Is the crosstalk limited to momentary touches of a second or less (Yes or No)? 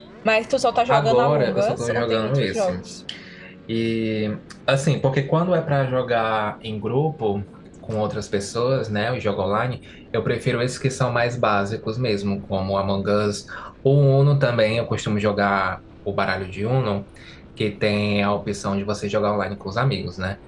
No